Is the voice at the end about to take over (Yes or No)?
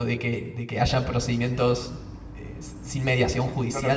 Yes